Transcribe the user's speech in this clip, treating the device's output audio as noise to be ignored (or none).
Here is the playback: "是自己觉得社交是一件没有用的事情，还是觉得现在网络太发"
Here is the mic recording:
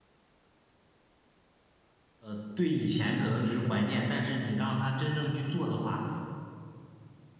呃，对以前可能只是怀念，但是你让他真正去做的话，